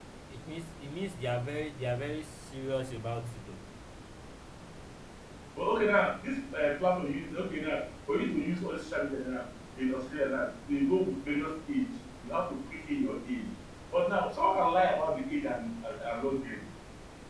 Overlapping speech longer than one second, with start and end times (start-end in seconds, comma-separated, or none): none